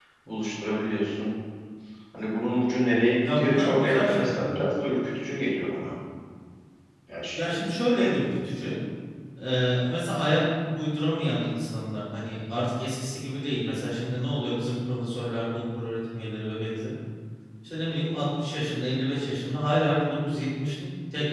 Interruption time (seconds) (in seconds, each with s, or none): 3.2 s